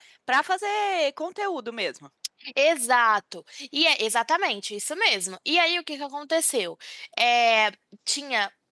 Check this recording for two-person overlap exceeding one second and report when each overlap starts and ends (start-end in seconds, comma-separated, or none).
none